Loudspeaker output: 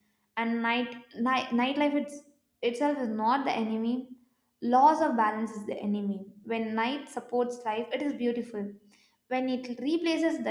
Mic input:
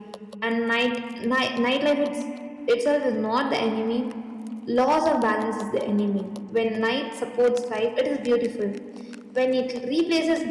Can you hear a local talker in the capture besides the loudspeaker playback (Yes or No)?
No